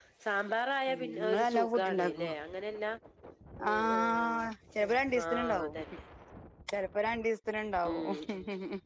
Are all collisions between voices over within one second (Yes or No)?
No